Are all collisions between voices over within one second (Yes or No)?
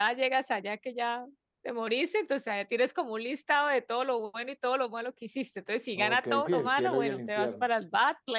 No